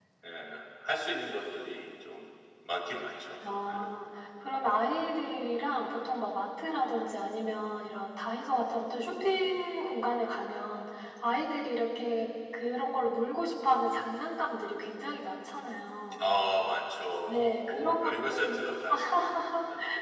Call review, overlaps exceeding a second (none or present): present